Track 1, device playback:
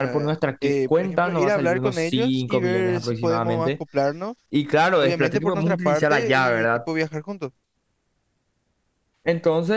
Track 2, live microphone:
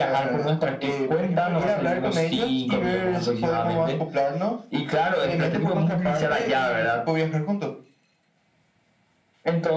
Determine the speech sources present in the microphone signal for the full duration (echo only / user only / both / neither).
echo only